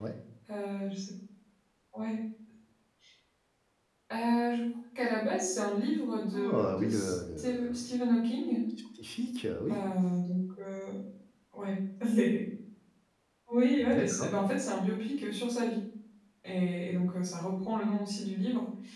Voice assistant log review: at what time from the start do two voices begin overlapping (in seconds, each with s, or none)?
6.3 s